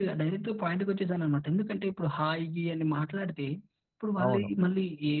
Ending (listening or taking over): listening